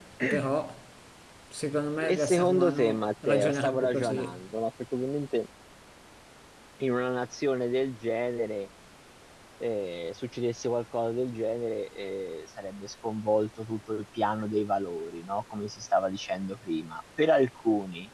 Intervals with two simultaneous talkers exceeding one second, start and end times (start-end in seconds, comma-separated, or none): 2.1-4.4